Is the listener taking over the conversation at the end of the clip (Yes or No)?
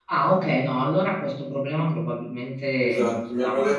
Yes